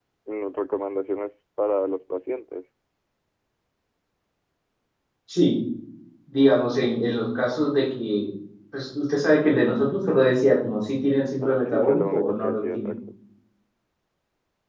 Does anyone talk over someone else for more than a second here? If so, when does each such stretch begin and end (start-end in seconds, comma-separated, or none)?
11.4-12.9